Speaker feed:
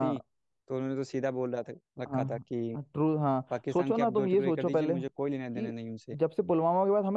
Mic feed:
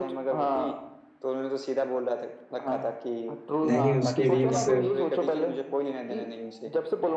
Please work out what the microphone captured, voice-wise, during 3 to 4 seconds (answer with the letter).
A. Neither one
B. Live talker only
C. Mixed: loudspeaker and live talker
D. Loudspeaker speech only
C